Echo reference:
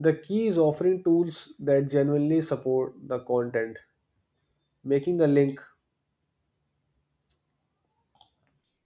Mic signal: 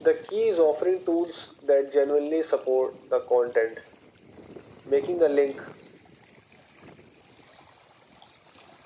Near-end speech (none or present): none